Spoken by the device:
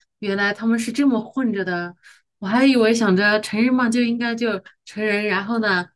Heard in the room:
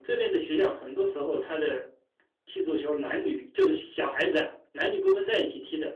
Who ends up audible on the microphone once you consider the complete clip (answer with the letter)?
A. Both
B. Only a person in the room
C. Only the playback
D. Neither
B